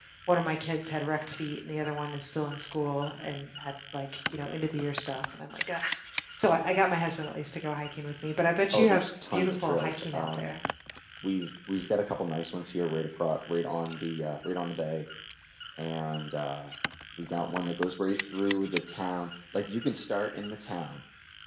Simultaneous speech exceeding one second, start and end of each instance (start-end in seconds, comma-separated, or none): 8.7-10.6